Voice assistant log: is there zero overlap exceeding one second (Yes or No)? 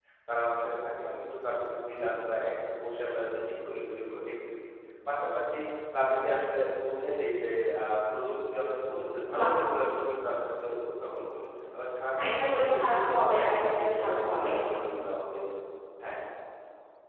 No